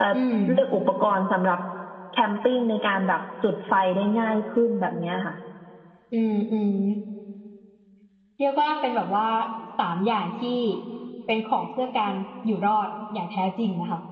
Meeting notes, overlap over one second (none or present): none